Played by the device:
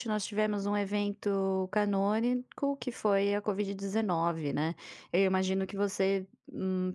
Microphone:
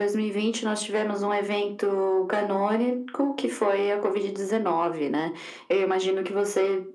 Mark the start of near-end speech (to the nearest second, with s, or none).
none